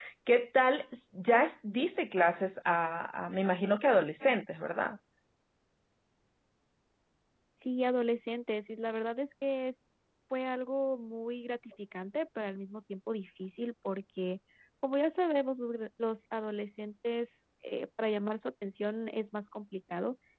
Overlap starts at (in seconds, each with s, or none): none